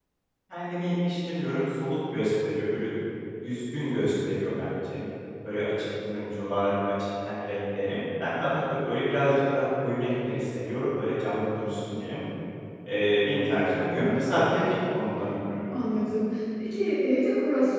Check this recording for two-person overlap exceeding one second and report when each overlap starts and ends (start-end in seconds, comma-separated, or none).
none